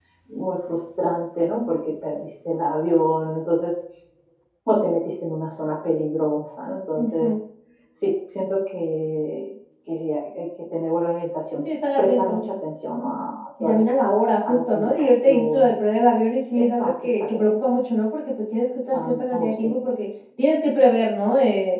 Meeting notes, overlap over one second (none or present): present